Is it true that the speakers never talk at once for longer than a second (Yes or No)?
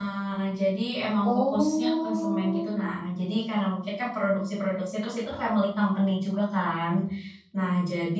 No